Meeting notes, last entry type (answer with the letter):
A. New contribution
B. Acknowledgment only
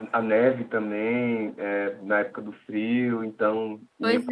B